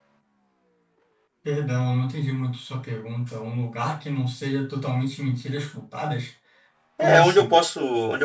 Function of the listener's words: taking over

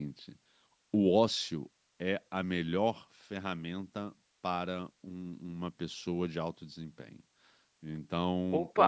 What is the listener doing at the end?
listening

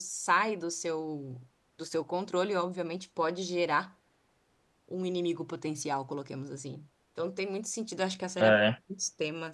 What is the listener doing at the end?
listening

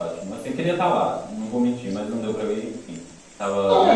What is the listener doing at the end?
taking over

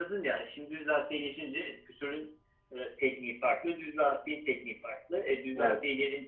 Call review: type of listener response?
listening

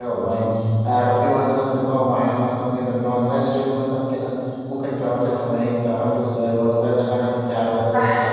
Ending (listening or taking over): taking over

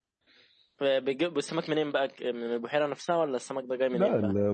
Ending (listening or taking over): taking over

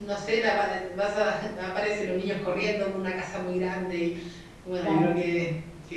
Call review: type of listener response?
listening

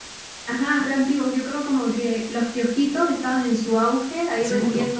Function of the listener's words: listening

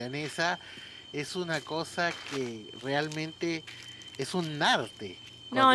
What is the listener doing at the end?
taking over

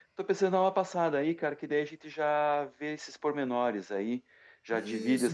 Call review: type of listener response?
taking over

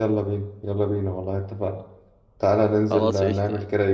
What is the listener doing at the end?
listening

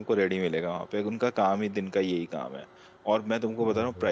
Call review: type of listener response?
listening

